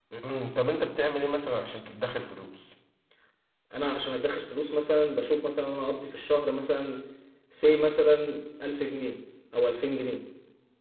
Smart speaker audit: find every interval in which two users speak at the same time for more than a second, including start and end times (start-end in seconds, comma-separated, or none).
none